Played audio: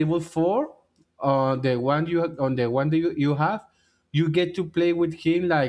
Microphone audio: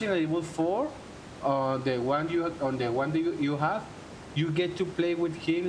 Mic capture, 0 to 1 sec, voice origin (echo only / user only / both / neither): echo only